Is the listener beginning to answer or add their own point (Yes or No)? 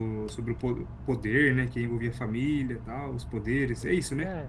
Yes